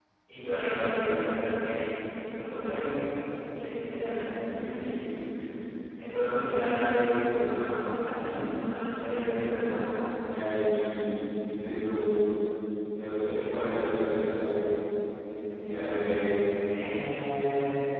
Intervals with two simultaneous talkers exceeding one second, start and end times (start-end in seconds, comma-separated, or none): none